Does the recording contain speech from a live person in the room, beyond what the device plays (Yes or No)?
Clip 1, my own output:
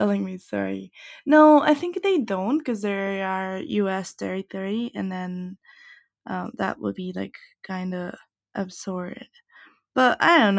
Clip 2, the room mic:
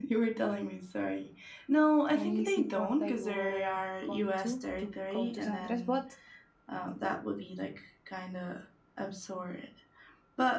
Yes